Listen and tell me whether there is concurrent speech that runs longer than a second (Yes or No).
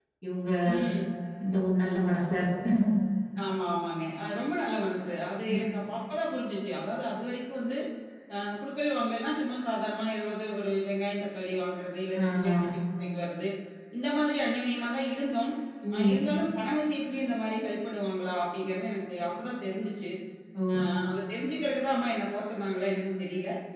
No